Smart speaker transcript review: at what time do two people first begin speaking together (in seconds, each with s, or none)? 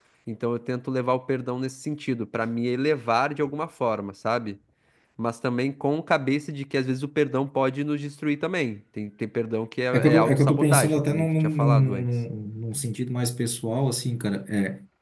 9.9 s